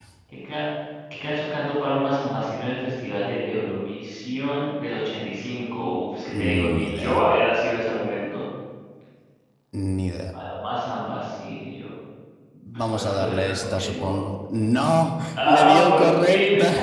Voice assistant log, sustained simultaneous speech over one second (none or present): present